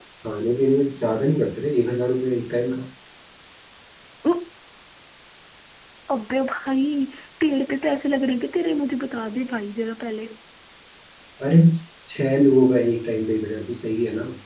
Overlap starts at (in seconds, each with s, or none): none